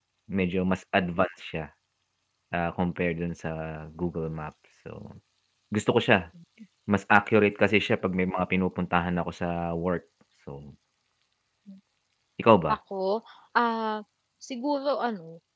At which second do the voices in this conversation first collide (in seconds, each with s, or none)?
none